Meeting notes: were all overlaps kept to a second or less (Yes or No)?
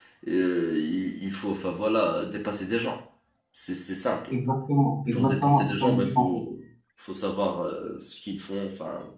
No